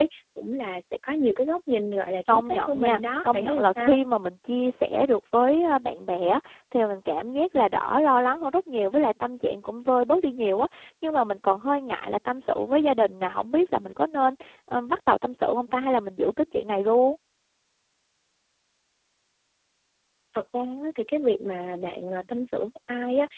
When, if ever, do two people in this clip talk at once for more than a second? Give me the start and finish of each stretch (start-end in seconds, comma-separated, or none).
2.3-4.0